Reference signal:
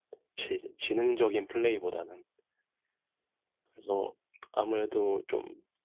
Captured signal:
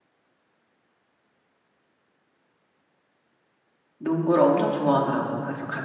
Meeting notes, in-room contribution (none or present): present